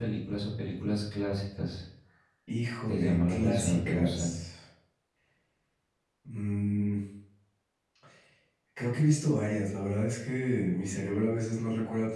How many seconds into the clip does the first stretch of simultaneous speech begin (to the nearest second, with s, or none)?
3 s